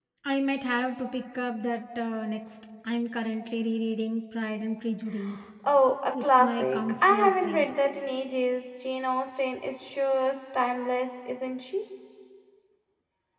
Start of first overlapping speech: 6.2 s

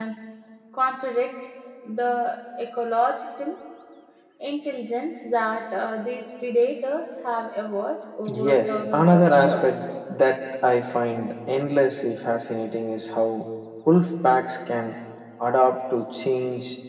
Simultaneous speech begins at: 8.2 s

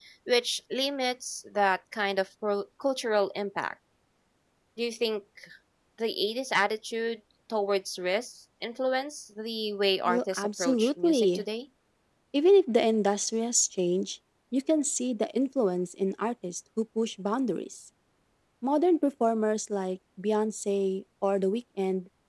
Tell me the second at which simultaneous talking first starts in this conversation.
10.1 s

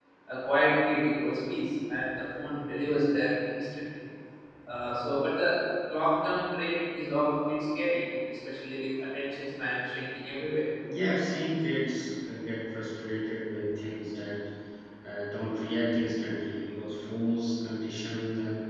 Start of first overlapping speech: none

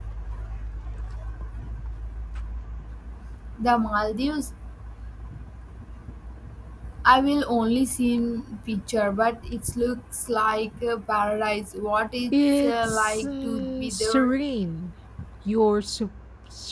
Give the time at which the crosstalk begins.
12.3 s

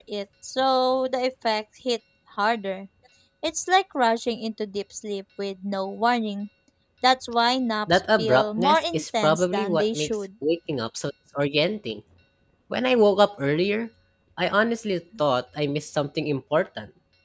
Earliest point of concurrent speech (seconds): 7.9 s

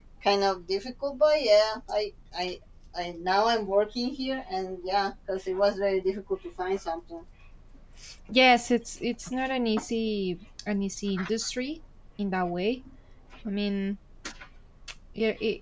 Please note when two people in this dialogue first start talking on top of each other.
none

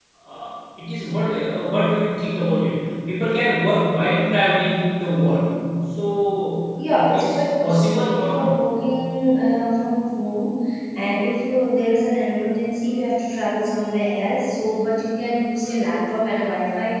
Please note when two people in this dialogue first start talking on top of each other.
6.8 s

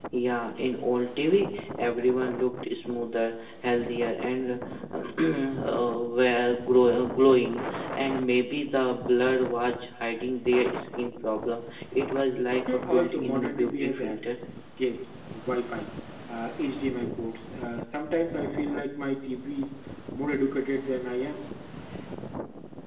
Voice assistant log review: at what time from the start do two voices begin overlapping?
12.7 s

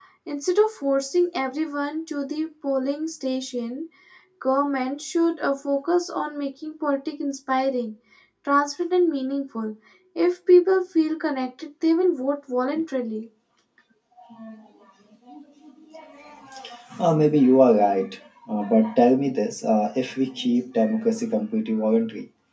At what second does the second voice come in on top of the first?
none

